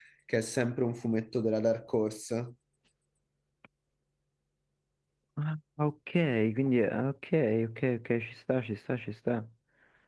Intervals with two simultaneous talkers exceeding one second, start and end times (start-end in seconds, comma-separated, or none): none